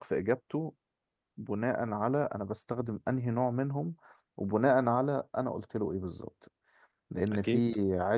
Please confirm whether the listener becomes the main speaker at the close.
No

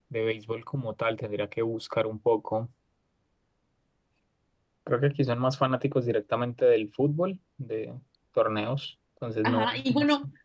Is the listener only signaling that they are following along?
No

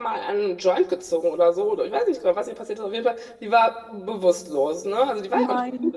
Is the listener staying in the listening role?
Yes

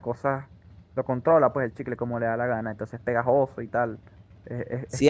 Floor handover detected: Yes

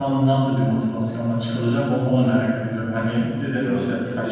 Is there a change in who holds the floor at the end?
No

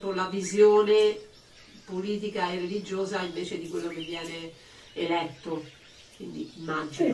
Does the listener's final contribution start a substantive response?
Yes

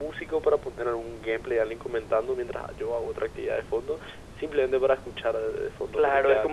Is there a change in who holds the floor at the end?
Yes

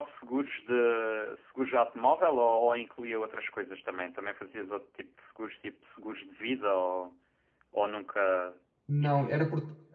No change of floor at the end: No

